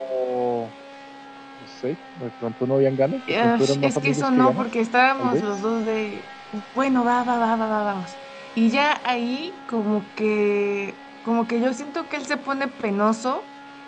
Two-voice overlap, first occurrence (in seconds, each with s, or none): 3.3 s